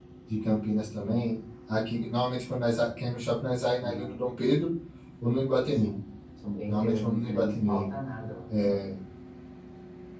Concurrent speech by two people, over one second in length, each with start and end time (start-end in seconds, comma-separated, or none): 6.7-7.9